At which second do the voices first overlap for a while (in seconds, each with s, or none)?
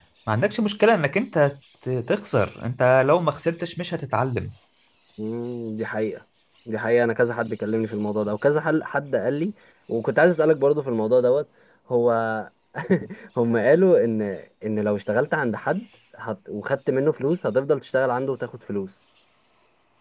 none